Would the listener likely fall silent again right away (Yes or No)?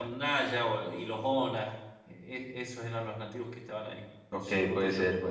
No